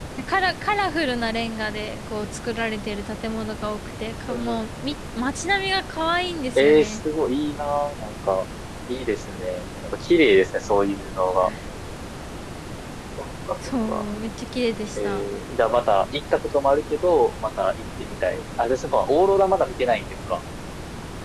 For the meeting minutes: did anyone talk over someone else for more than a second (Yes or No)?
No